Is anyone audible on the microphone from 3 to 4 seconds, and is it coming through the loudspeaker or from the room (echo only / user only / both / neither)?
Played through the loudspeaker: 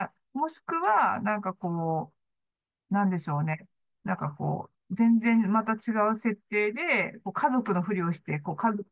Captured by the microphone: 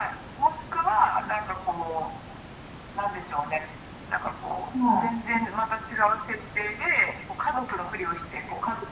echo only